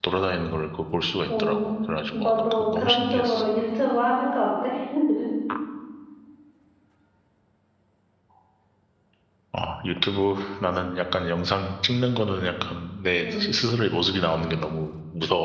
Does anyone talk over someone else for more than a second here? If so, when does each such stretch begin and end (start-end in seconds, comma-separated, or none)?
2.1-3.4